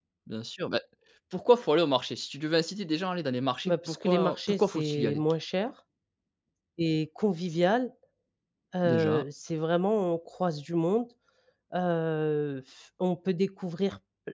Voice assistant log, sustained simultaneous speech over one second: present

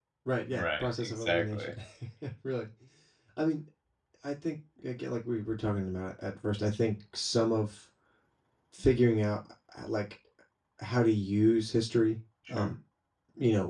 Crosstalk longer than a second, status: present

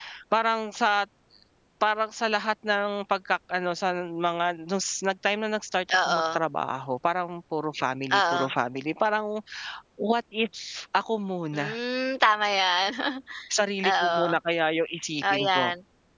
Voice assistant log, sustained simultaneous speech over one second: none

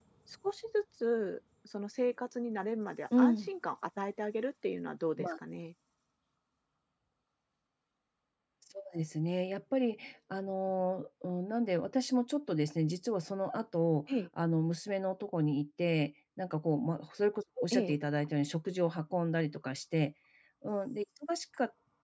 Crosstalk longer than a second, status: none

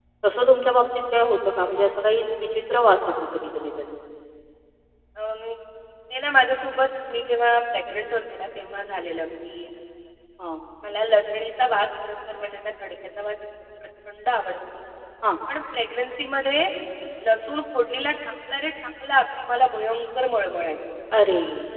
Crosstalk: none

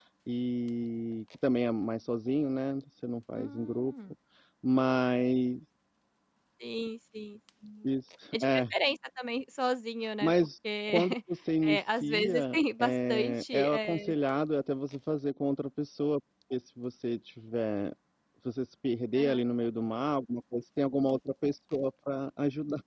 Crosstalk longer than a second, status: present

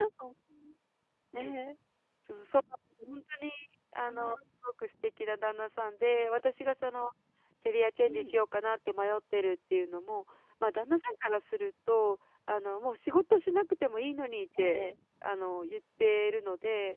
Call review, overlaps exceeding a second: none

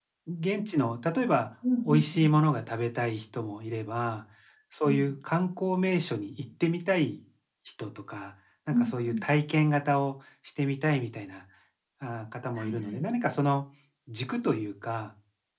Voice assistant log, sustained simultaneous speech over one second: none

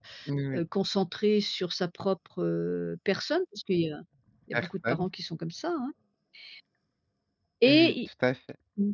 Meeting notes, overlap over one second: none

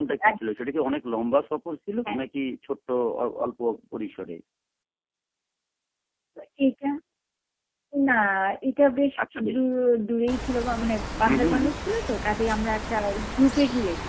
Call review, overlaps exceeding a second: none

